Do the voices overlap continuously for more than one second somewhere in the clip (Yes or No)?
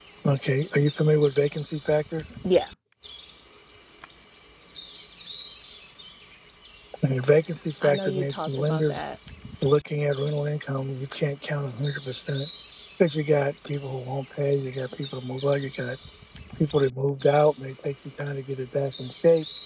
Yes